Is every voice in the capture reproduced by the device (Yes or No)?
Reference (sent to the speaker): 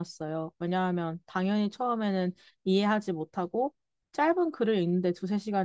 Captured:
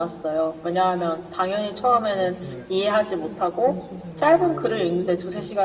No